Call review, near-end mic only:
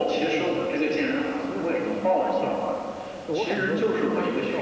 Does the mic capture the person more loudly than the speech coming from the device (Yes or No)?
No